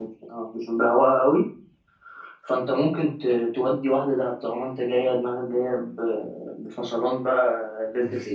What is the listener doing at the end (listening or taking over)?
taking over